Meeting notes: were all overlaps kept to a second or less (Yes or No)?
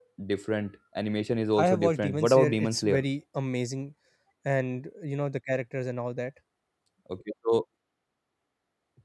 No